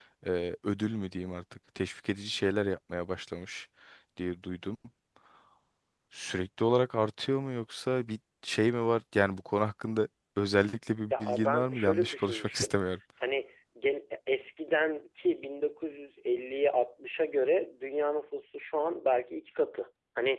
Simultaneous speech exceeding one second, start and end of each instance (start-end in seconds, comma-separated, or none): 11.1-12.7